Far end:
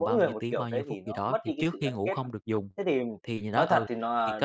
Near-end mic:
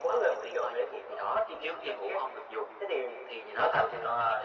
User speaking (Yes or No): No